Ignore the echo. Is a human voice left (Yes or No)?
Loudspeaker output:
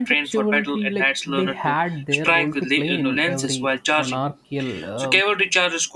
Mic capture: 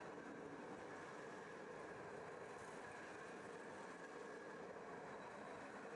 No